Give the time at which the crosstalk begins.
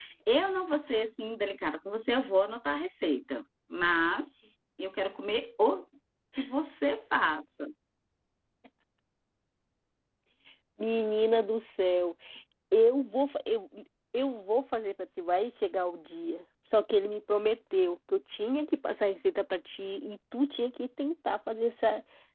none

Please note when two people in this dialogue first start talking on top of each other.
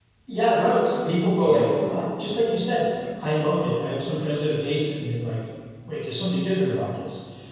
1.4 s

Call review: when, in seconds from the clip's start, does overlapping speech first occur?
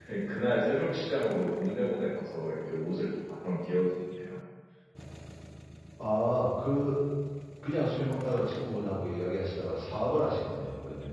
none

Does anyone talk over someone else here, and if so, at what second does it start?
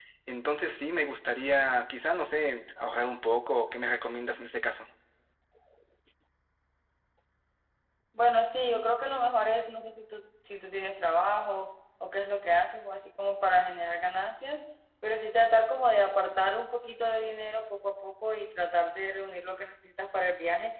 none

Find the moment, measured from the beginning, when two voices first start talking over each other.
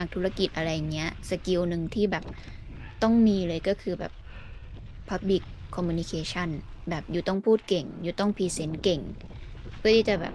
none

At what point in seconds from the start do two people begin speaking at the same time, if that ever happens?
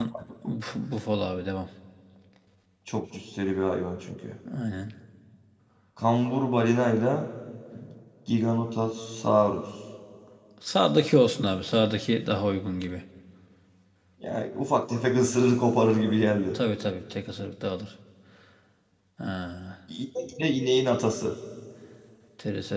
none

